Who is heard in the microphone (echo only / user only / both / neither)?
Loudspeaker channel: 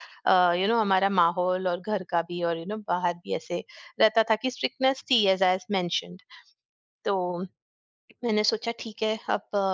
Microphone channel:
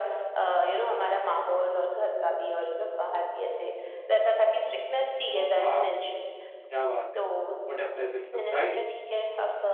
both